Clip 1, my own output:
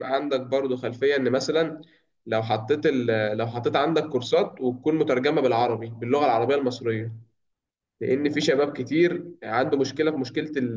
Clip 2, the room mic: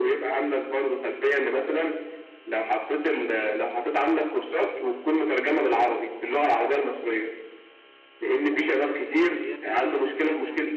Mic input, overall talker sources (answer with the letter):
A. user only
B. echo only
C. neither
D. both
D